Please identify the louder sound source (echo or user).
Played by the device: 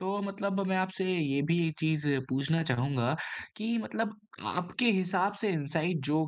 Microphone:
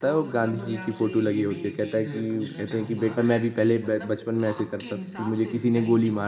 user